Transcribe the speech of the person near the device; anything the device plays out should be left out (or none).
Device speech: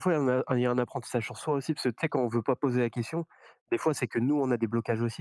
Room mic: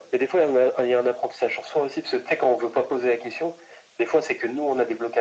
none